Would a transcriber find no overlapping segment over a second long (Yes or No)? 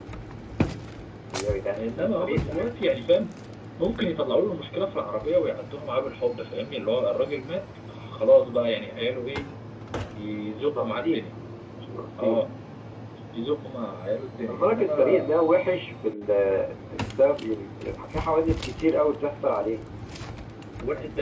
No